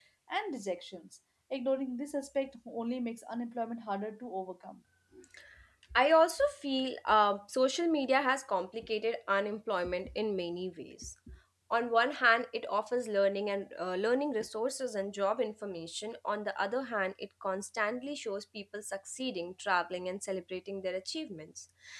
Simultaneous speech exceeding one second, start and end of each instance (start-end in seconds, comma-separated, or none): none